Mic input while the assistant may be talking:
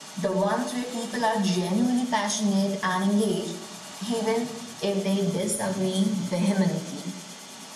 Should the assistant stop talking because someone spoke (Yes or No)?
No